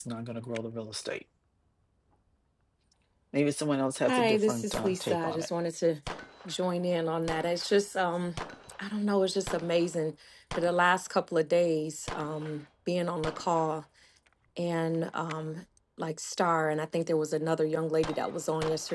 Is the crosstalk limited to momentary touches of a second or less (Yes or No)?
No